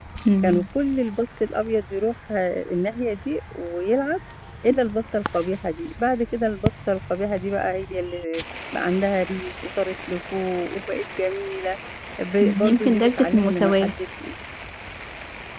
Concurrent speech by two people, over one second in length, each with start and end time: 12.4-13.9

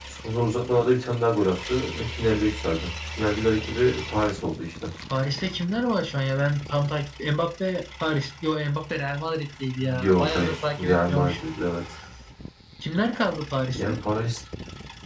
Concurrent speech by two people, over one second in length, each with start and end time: 10.0-11.5

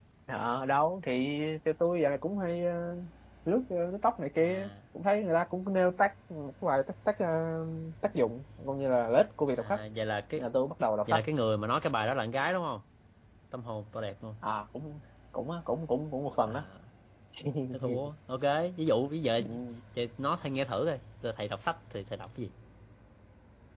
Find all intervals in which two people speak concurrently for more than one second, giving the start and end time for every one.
none

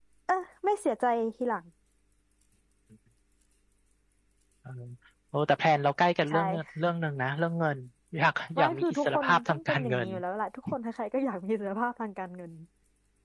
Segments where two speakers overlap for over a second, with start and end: 8.6-10.1

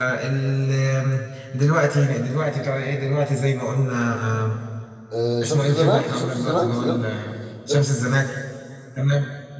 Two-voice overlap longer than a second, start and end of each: 5.4-7.0

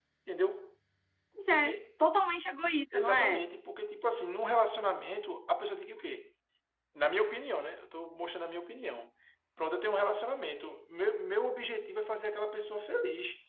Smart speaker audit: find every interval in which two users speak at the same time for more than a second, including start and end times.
none

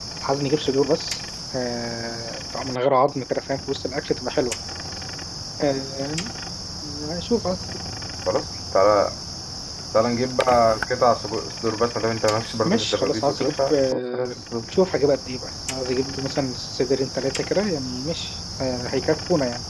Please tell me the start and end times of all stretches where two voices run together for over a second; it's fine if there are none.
12.7-14.3

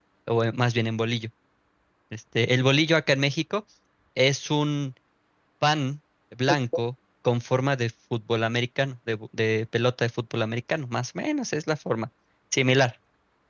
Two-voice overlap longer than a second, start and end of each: none

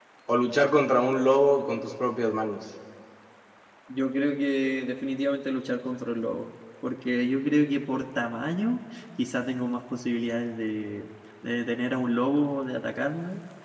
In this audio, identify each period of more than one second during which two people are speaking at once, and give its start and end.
none

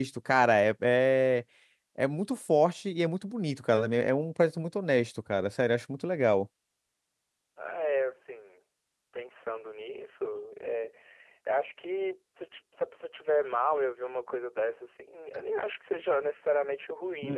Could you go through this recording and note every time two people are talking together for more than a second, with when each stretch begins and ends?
none

